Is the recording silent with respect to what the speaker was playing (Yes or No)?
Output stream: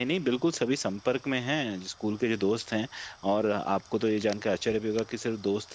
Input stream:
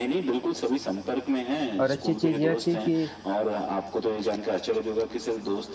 No